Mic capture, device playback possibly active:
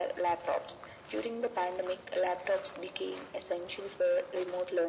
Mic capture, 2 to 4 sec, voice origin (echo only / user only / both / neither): echo only